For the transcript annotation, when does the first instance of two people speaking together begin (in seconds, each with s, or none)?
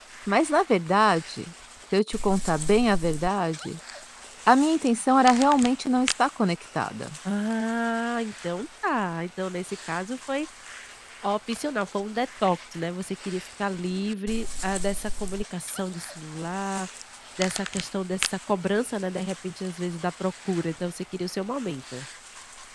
none